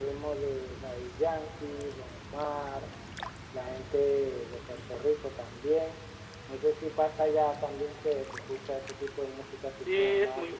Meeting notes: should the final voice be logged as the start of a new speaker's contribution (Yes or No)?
Yes